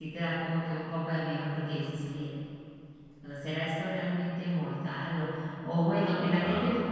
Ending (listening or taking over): listening